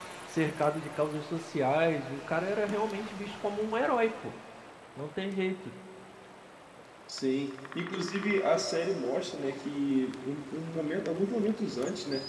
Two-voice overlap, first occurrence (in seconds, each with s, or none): none